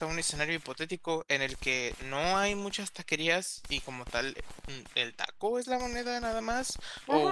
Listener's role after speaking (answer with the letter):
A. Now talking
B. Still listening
A